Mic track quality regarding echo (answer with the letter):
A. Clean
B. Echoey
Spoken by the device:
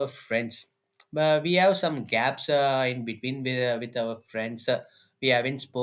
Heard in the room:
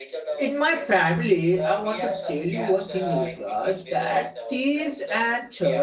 B